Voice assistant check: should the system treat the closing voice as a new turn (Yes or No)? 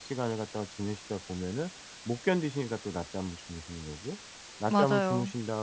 No